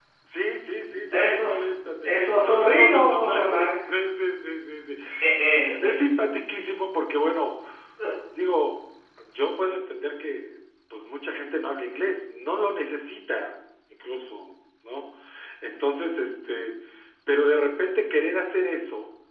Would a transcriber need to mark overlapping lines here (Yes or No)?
Yes